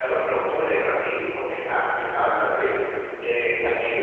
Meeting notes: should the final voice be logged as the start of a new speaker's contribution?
No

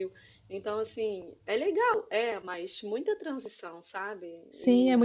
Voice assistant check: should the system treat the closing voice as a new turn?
Yes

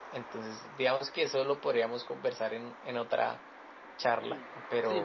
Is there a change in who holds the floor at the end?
Yes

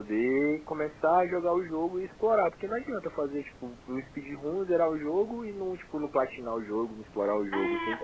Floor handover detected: Yes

